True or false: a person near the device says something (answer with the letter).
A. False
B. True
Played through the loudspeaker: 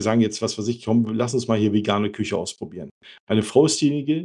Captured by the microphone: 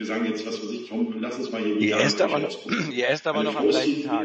B